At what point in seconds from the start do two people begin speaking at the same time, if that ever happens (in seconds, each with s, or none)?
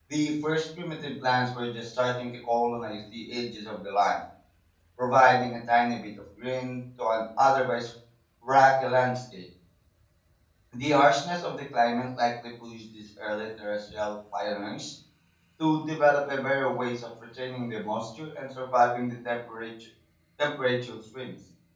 none